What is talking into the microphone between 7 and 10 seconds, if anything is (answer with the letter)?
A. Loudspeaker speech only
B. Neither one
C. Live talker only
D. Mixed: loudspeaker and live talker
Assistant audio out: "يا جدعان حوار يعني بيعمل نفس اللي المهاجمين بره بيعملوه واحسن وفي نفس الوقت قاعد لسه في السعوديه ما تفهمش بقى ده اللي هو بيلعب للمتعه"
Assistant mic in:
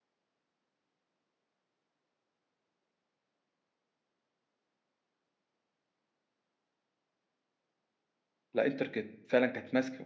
C